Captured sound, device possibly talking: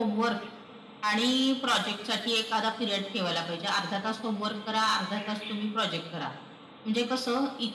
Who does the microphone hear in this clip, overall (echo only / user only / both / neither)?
echo only